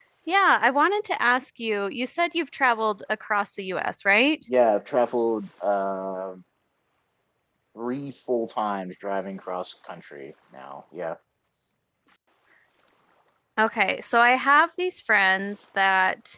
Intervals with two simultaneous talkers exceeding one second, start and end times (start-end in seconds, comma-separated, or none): none